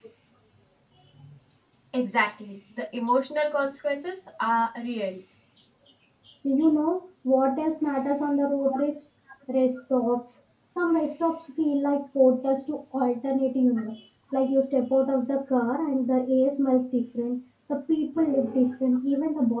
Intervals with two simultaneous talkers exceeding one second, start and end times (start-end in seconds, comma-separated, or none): none